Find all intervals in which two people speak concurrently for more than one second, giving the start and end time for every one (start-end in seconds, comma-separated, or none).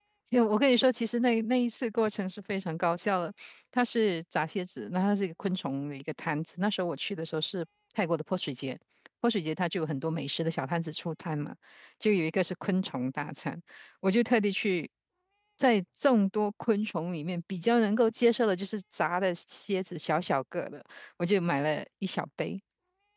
none